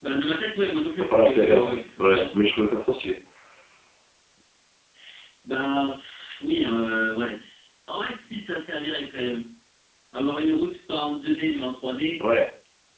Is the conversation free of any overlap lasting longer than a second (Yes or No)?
No